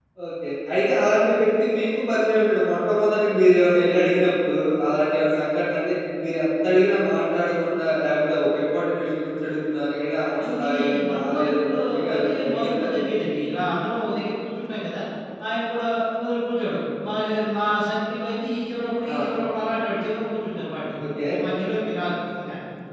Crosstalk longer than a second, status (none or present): present